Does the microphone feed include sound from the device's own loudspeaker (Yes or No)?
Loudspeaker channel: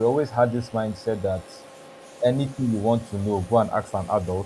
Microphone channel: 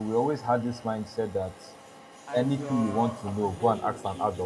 Yes